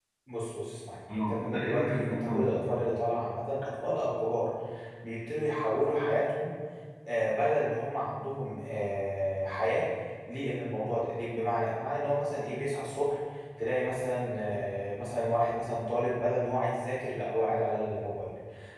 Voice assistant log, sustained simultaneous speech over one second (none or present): present